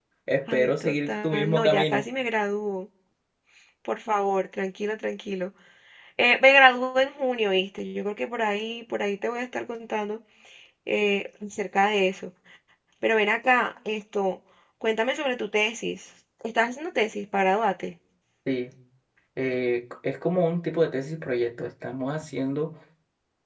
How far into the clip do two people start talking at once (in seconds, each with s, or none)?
0.5 s